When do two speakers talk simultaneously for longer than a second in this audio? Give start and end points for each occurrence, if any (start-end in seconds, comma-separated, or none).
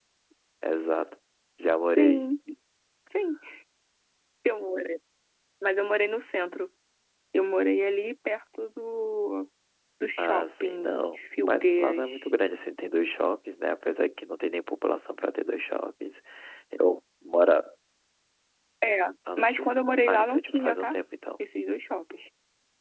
10.2-12.3, 19.4-20.9